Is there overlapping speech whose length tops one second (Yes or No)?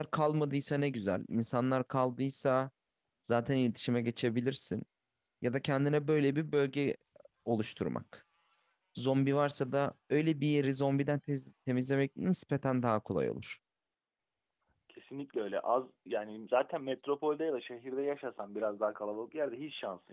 No